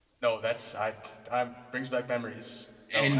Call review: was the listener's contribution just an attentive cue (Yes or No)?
No